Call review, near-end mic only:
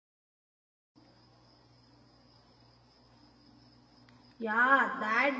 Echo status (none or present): none